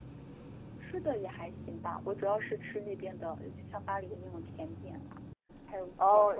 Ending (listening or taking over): taking over